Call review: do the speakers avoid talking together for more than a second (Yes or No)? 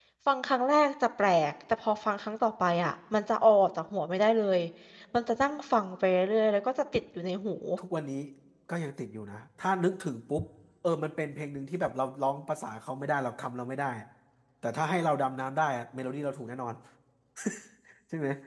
Yes